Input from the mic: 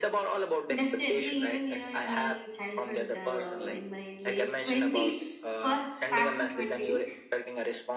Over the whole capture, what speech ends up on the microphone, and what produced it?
both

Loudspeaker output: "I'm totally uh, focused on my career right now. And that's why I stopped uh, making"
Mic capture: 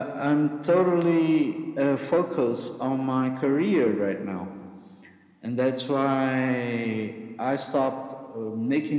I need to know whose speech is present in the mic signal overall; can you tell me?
echo only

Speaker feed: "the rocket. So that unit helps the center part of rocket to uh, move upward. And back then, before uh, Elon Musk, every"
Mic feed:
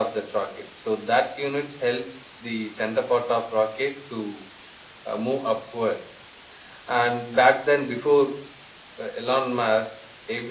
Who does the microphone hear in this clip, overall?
echo only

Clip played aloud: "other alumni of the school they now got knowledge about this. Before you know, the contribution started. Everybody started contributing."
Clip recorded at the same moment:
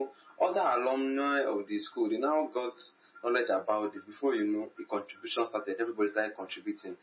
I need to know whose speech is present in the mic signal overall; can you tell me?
echo only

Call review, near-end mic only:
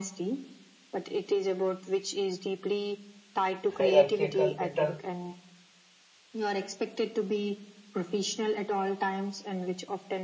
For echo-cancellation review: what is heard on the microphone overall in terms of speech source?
both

